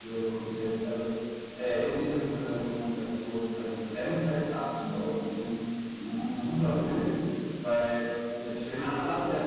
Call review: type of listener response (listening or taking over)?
taking over